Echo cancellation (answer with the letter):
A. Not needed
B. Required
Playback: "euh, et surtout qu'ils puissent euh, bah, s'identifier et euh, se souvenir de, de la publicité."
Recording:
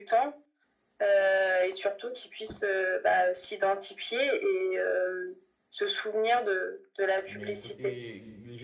B